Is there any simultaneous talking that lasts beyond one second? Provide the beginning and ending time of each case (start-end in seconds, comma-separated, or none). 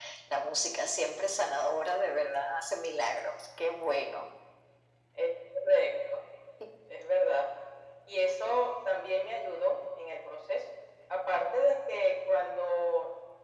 none